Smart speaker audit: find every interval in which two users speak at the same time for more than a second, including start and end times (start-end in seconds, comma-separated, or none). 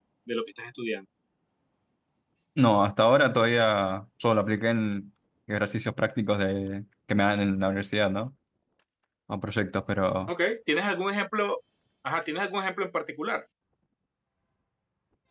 none